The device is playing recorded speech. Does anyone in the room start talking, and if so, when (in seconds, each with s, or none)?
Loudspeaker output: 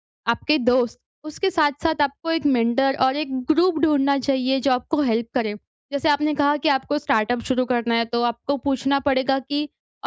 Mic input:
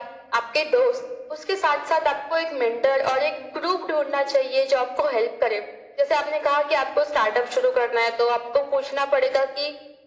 none